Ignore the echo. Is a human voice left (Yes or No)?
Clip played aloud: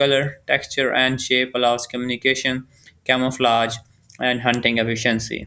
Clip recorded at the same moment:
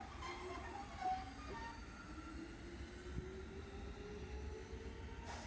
No